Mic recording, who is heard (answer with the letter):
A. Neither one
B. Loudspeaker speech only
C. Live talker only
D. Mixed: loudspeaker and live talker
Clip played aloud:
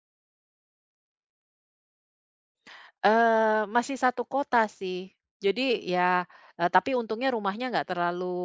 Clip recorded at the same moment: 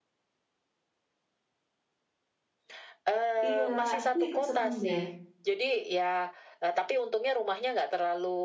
D